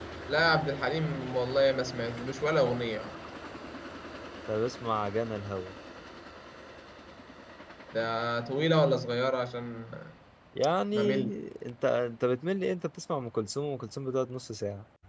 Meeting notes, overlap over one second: none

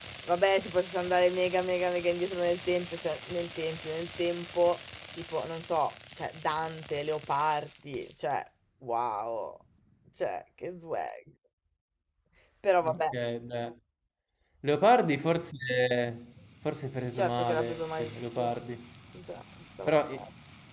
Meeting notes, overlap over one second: present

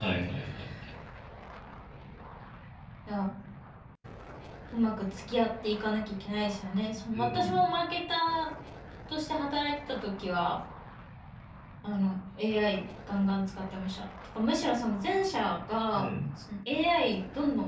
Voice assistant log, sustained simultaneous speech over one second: none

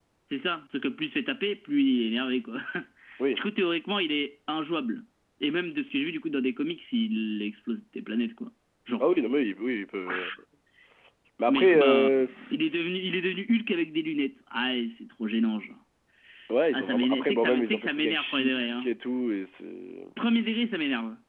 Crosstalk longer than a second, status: present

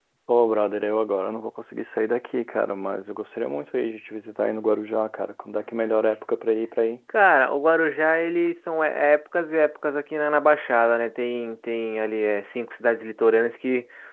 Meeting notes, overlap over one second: none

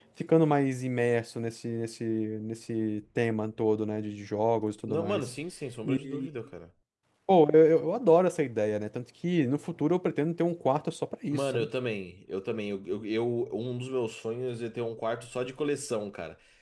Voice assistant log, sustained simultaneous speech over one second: none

